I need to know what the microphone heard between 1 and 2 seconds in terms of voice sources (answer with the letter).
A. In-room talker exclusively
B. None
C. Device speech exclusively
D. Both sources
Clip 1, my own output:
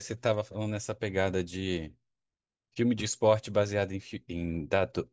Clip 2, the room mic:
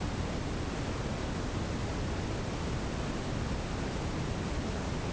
B